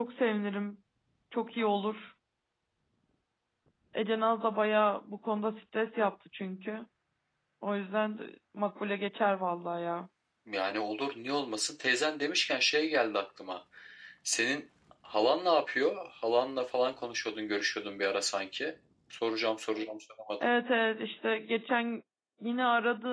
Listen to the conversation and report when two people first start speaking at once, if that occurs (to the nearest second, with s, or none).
none